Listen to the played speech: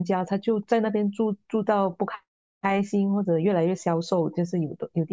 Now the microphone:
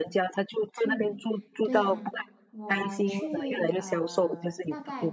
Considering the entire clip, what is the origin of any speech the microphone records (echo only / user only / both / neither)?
both